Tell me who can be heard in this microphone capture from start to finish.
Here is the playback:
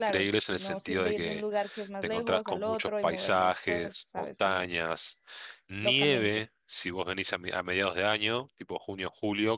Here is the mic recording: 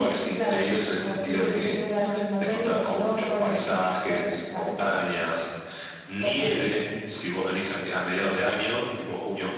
both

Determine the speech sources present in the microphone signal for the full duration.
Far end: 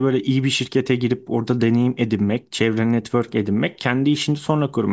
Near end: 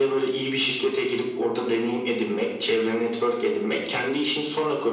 echo only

